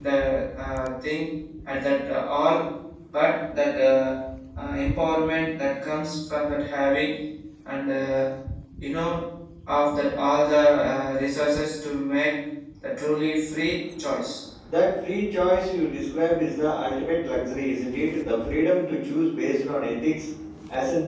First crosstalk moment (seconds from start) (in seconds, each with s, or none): none